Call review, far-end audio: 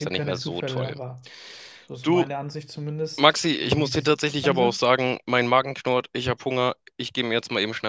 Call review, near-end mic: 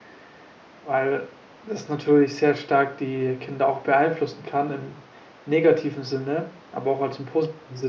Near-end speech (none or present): present